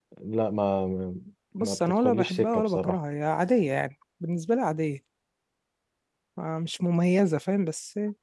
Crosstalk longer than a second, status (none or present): present